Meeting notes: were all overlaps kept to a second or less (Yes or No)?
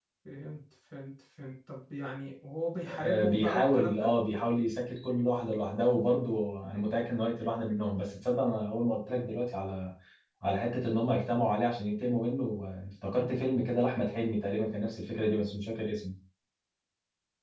No